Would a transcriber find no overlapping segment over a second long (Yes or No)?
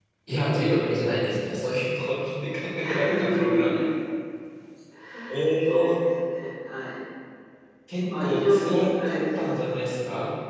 No